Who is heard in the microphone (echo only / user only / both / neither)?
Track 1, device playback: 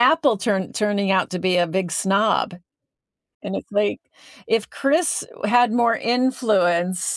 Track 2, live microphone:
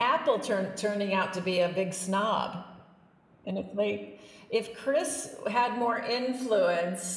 echo only